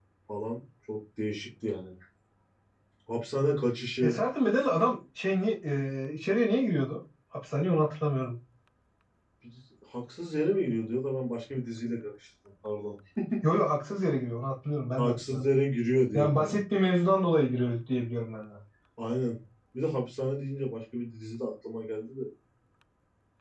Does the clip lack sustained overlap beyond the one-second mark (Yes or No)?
Yes